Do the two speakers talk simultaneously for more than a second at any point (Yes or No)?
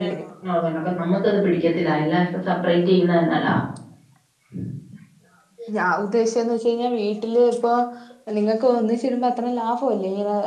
No